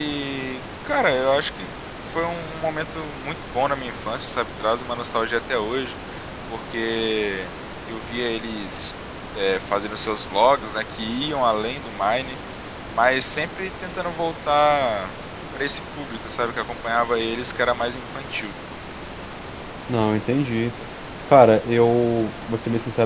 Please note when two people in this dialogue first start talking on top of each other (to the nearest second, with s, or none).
none